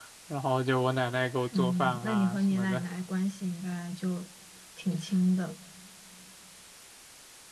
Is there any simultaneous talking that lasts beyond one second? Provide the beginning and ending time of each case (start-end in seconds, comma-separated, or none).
1.6-2.8